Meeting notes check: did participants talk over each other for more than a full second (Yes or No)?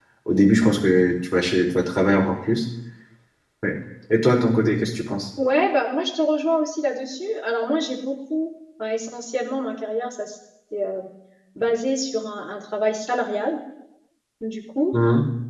No